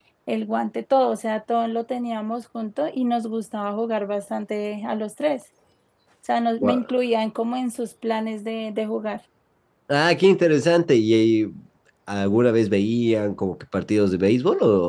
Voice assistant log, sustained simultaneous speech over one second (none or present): none